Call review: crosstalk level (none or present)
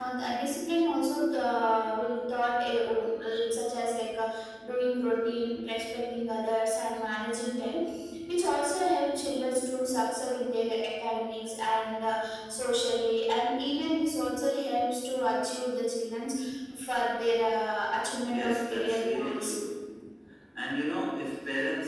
present